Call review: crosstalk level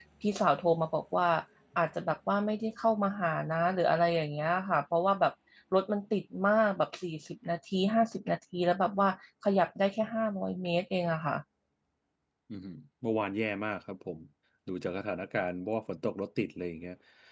none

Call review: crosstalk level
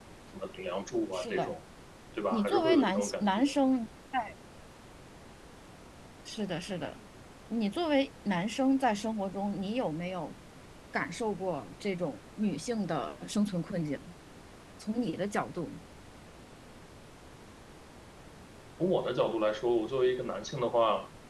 present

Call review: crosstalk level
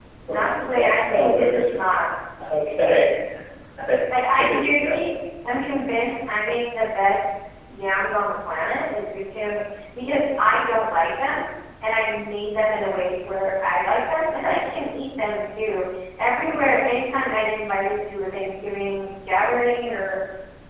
present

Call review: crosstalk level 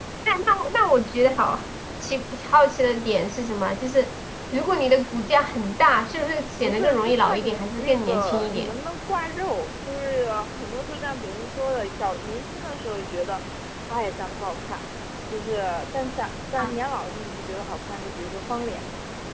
present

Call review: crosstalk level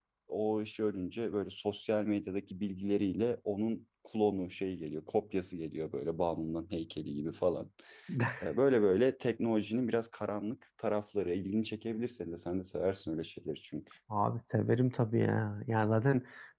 none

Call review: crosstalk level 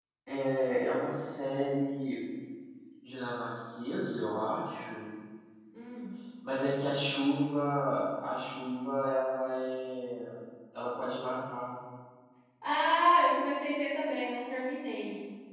none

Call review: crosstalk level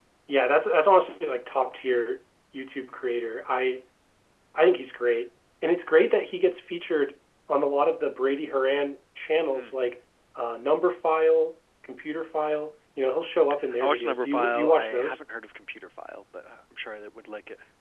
present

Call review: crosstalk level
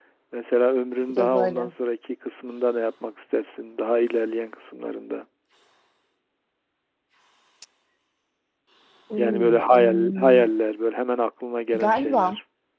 present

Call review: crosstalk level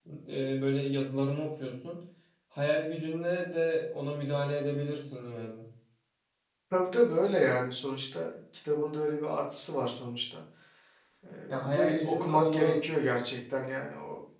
present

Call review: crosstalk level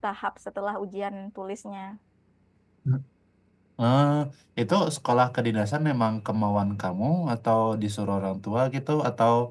none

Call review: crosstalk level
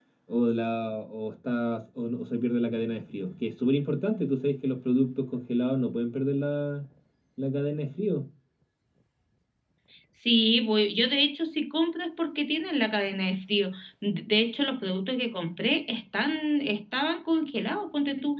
none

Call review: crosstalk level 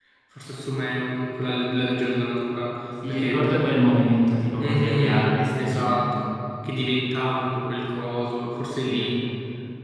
present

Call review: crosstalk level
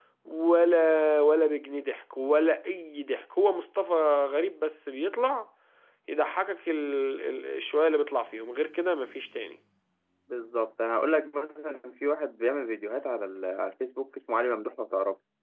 none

